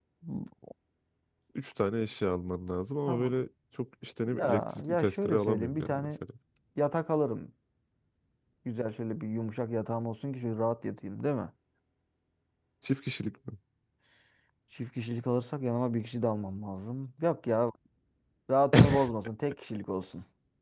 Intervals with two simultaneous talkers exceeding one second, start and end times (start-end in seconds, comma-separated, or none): 4.3-6.1